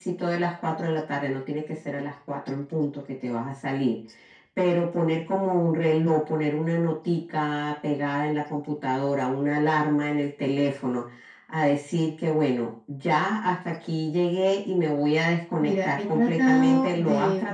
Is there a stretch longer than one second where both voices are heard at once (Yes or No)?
Yes